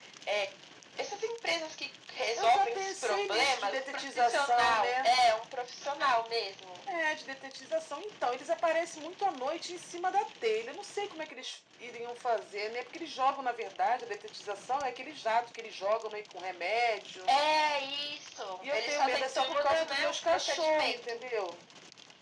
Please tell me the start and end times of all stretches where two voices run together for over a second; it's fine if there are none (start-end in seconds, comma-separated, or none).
2.4-5.1, 18.6-21.2